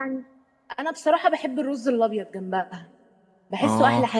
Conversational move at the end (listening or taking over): taking over